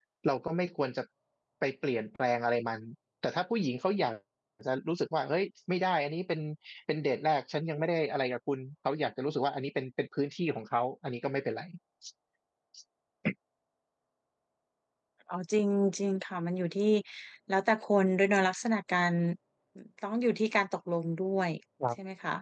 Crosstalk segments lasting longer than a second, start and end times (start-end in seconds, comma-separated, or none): none